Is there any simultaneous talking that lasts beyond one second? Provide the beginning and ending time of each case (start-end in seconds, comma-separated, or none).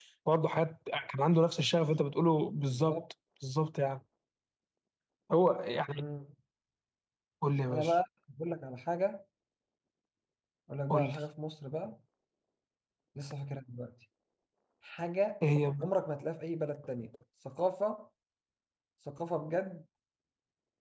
none